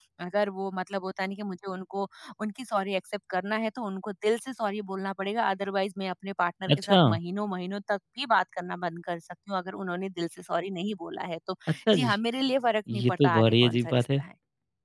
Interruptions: present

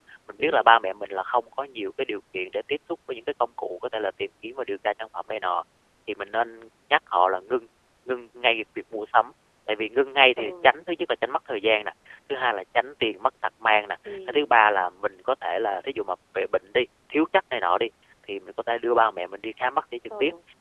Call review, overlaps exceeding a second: none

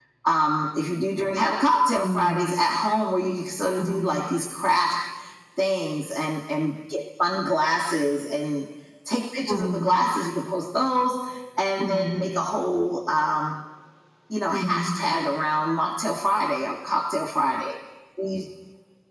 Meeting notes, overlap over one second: none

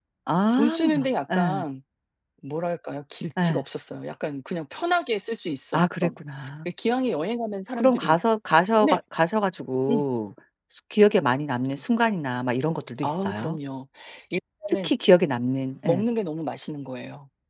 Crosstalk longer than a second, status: none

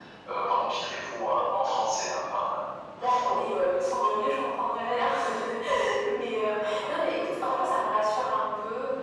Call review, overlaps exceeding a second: none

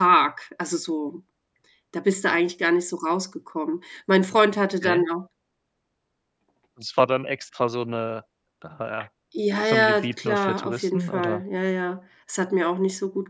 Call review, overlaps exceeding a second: present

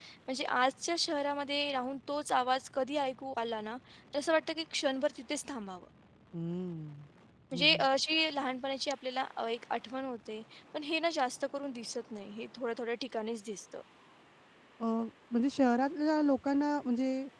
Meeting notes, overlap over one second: none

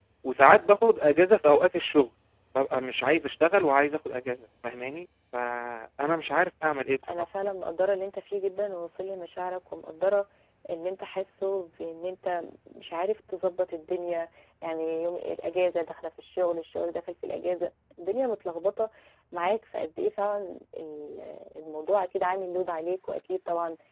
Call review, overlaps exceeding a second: none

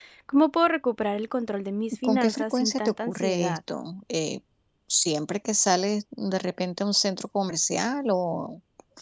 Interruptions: present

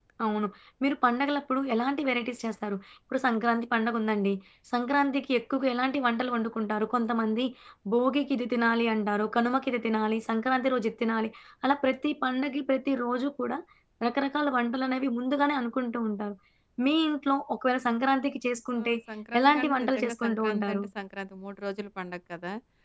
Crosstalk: present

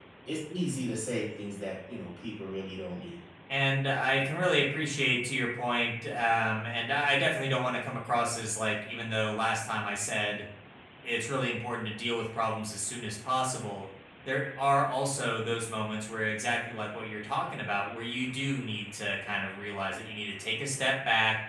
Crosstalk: none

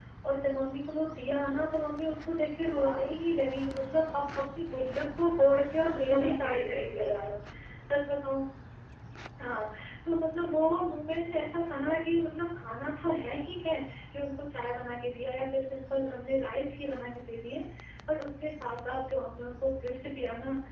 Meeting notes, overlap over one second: present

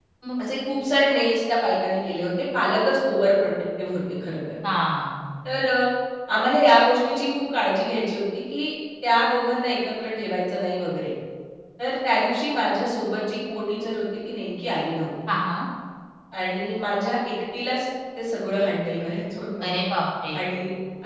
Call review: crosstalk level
none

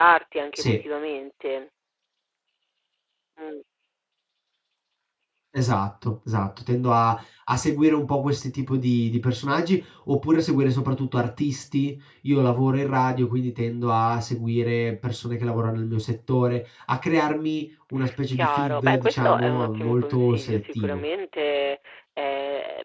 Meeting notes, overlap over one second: present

